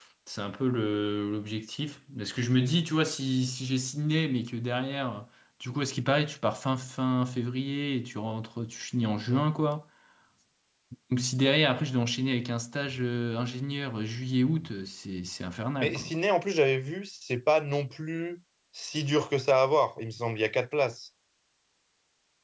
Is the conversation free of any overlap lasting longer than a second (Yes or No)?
Yes